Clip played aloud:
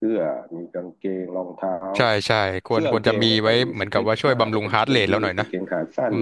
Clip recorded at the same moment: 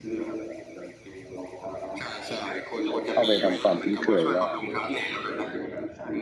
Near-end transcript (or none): เข้าไปทำความคุ้นเคยว่า